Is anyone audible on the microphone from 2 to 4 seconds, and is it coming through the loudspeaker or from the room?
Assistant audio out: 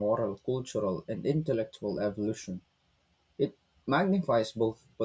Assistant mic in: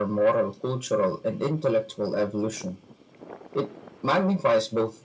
echo only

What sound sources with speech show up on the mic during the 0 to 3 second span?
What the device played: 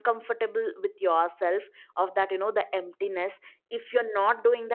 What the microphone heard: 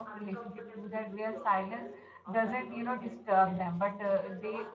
both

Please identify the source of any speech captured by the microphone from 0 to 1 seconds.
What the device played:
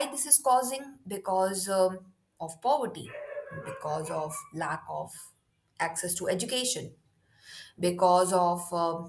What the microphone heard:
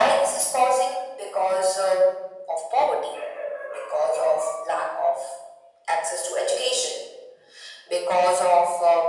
echo only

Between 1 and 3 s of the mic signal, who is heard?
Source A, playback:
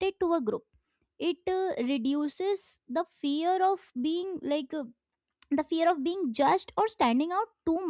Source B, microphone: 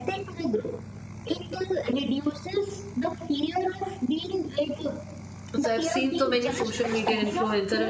echo only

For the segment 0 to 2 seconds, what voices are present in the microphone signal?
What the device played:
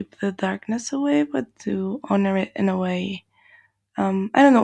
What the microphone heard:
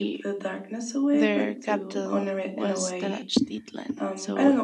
both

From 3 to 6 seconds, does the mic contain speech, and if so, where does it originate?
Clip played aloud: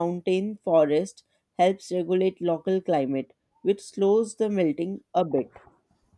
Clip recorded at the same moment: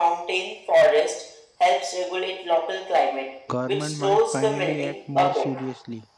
both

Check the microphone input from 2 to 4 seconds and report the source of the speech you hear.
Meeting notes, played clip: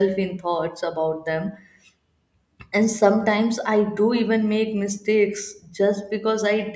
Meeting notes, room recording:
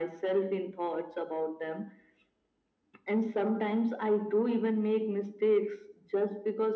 echo only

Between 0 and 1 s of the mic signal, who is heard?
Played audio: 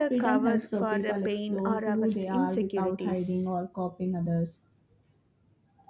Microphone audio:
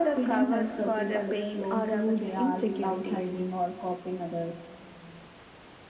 echo only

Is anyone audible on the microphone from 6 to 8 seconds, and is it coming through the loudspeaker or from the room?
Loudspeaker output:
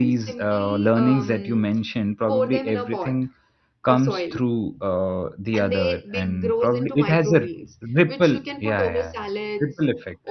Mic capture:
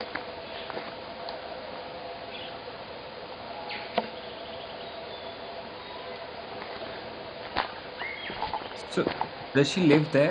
neither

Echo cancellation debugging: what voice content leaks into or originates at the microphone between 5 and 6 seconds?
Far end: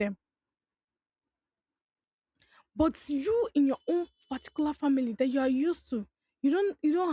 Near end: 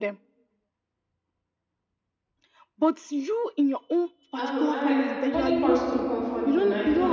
both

